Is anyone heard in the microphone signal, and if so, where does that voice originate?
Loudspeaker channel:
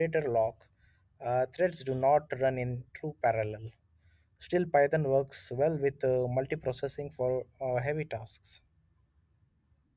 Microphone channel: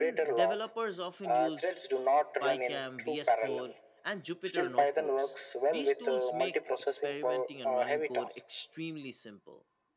both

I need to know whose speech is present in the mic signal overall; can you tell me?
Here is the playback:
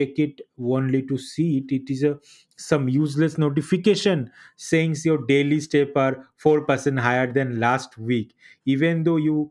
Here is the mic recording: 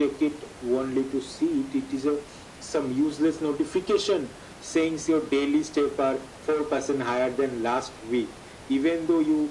echo only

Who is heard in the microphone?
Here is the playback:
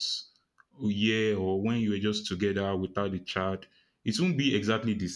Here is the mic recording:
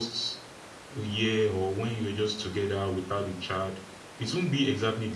echo only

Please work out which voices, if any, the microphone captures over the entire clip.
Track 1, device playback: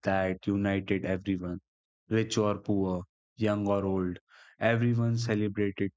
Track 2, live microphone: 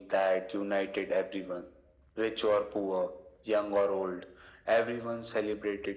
echo only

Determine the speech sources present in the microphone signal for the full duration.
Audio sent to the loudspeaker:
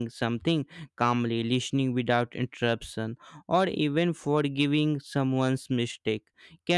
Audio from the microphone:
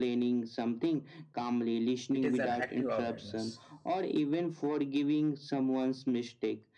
both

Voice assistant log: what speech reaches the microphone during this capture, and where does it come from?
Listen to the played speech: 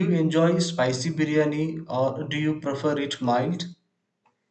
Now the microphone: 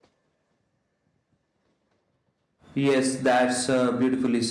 user only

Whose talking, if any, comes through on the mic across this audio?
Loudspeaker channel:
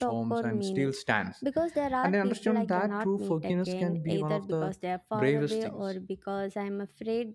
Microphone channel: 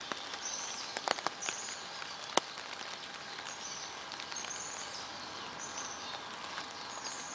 neither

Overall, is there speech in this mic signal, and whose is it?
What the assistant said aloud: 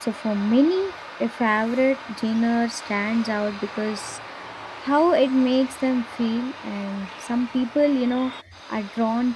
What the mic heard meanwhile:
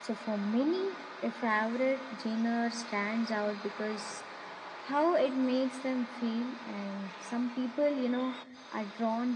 echo only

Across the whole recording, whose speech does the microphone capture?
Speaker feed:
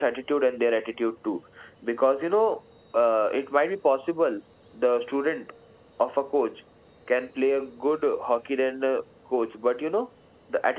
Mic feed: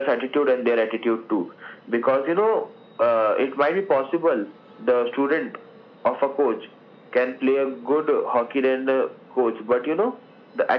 echo only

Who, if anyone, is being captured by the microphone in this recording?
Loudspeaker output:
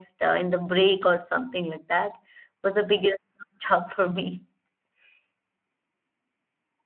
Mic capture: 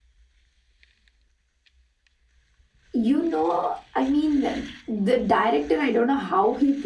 user only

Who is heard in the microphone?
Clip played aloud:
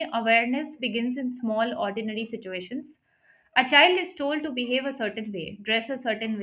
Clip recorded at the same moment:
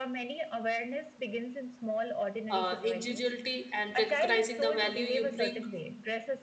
both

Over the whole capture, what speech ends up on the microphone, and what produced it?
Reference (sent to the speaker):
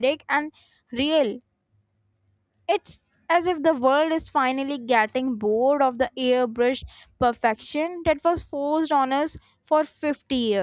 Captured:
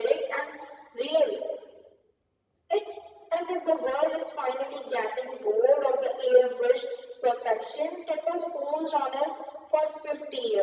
echo only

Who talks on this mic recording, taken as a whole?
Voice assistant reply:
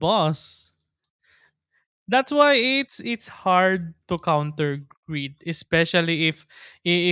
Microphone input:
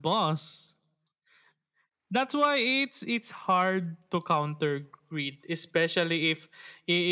echo only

